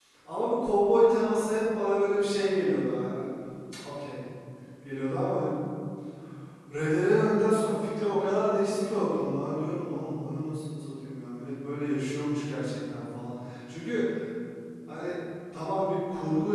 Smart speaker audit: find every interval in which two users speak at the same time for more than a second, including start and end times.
none

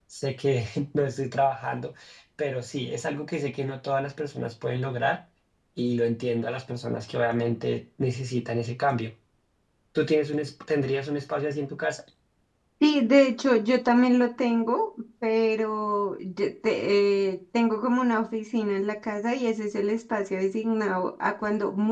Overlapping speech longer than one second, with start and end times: none

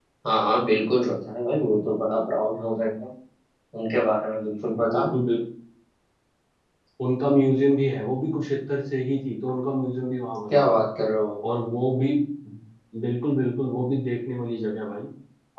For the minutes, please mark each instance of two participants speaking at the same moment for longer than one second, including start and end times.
none

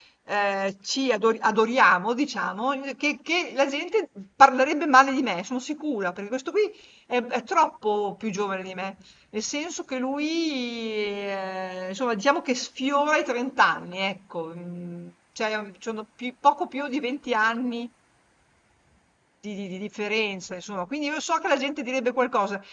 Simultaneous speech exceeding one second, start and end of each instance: none

